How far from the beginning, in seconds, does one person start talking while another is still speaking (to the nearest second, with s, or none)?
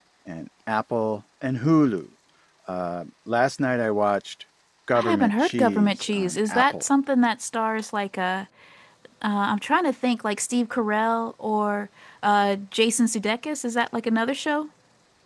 5 s